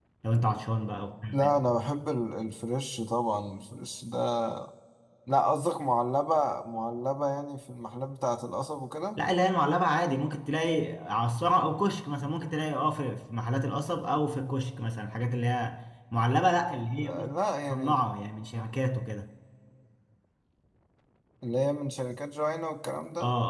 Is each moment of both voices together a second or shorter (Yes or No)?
Yes